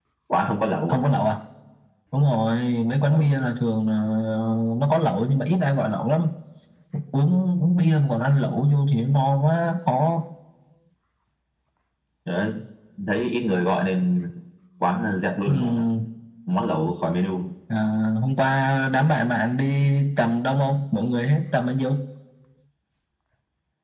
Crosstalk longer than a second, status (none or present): none